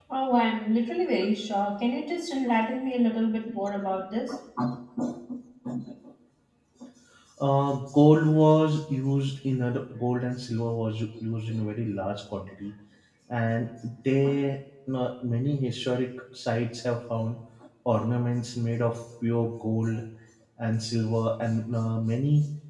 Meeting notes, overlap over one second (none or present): none